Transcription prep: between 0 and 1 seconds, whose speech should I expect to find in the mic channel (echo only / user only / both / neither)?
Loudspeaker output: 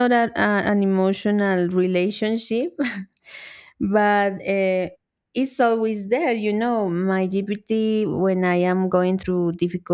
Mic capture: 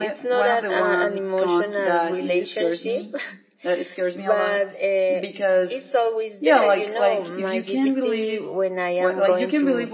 both